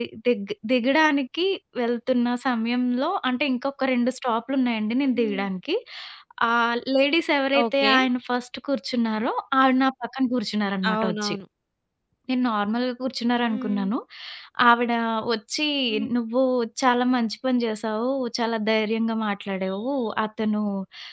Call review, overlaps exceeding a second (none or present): none